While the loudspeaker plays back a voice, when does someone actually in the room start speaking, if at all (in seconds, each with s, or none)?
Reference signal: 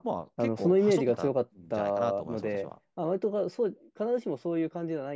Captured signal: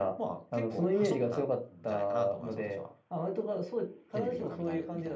4.1 s